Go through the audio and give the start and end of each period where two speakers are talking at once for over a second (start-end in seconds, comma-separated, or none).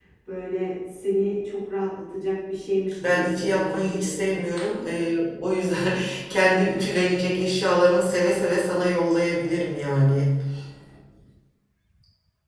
3.1-4.4